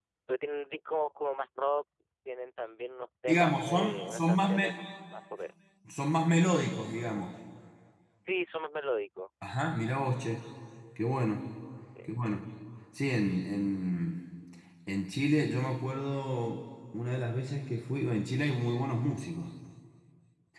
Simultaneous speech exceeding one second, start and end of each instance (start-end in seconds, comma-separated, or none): 3.3-4.7